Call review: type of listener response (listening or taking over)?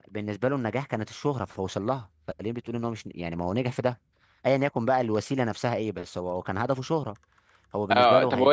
taking over